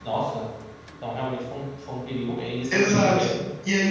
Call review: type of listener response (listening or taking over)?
taking over